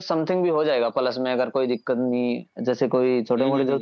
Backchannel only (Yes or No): Yes